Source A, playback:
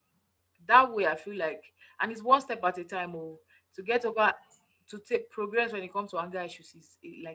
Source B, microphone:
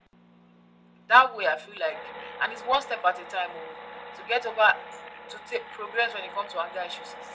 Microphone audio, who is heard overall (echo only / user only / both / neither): echo only